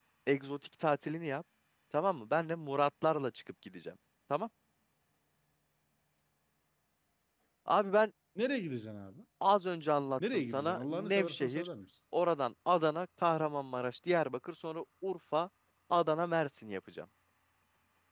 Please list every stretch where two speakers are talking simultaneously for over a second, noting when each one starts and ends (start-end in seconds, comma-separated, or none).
10.3-11.7